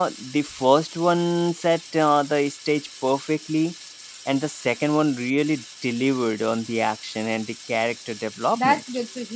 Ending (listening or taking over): taking over